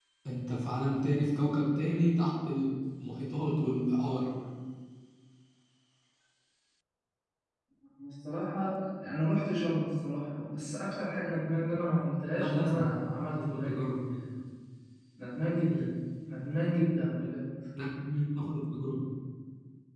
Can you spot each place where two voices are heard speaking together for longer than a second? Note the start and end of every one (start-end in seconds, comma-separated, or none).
none